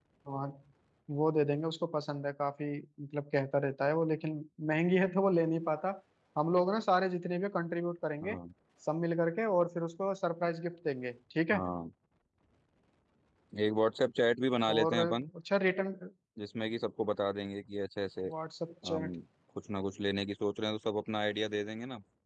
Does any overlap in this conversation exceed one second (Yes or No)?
No